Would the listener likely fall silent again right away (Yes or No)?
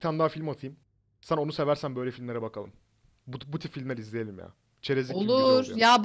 No